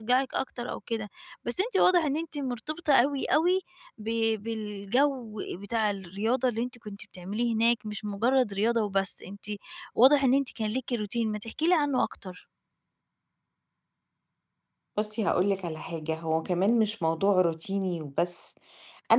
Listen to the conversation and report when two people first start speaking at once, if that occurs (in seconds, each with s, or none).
none